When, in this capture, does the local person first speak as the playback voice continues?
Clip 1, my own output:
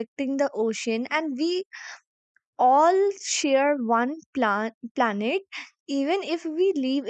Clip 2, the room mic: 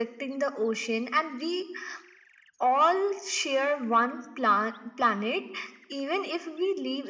none

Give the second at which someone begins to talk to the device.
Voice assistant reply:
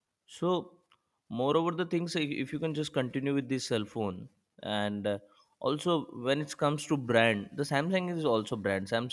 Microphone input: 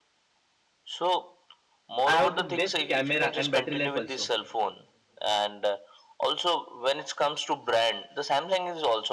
2.0 s

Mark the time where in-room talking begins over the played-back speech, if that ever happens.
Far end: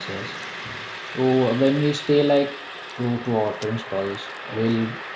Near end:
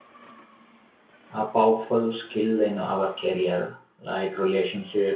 1.3 s

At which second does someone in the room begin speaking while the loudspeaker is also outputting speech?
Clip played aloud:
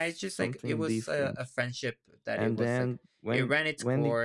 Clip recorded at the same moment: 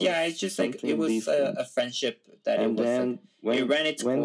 none

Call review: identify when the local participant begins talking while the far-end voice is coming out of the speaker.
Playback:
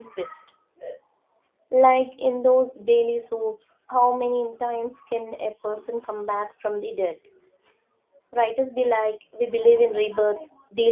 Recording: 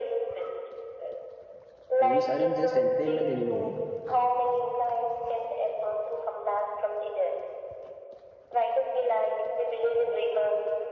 2.0 s

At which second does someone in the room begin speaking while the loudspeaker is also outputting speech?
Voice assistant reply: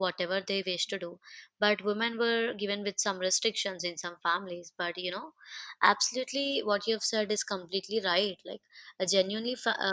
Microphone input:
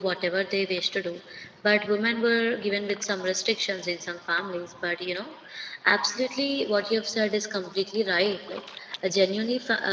none

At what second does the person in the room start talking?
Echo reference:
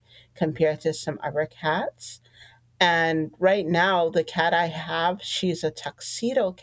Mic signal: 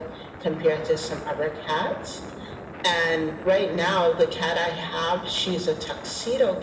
none

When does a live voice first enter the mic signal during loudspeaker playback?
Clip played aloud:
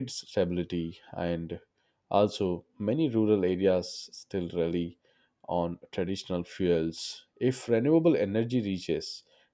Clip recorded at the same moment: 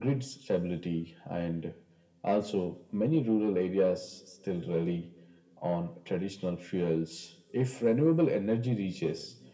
none

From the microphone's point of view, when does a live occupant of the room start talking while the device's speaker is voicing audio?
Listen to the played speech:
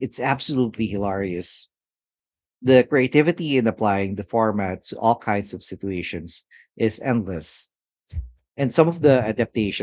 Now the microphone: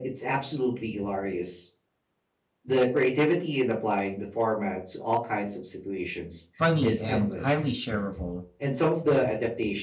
6.6 s

